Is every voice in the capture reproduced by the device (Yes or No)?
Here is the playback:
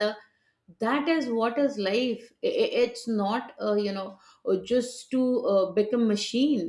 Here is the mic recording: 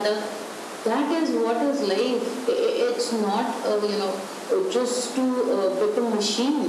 Yes